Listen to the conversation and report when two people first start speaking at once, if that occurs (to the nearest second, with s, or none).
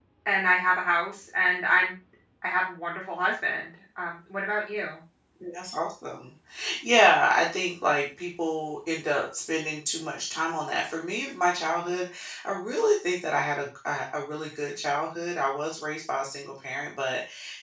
none